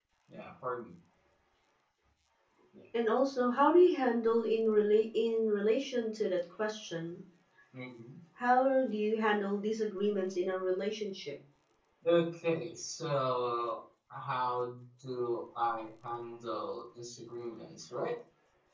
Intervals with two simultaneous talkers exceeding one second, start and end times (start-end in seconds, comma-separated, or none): none